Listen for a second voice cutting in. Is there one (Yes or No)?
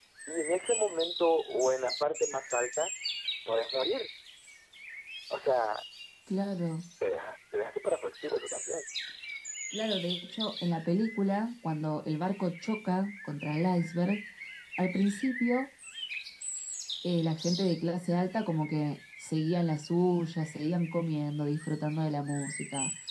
No